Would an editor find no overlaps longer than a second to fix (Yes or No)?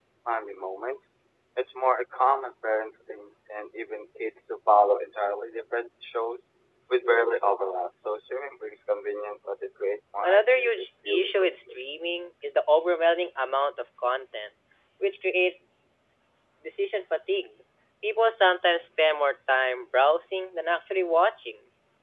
No